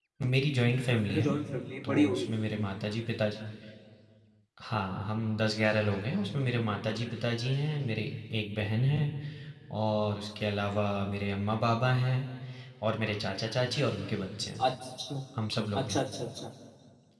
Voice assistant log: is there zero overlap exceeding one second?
Yes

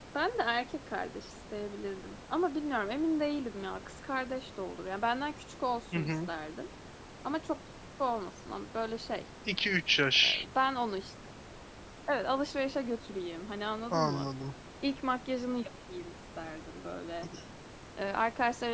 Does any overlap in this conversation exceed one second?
No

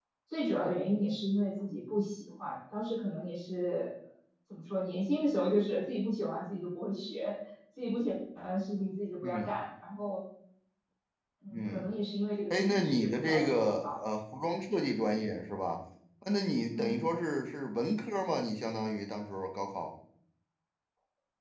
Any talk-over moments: Yes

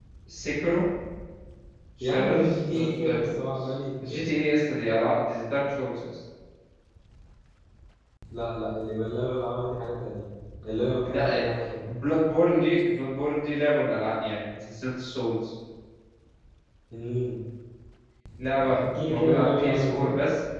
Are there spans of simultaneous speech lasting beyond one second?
Yes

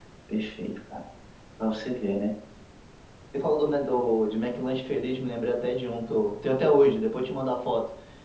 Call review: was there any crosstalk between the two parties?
No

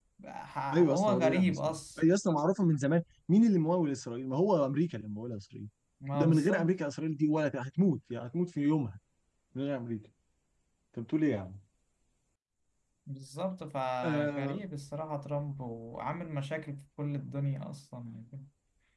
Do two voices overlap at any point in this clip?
Yes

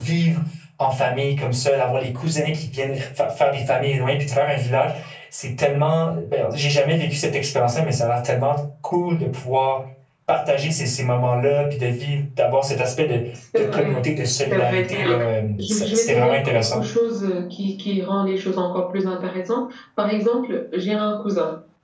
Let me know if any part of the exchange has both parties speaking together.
Yes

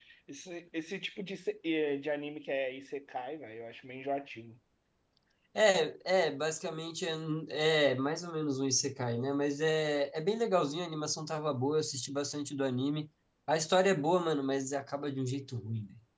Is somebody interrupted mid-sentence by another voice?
No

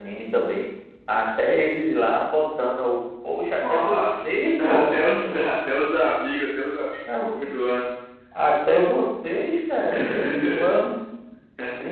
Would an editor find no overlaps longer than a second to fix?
No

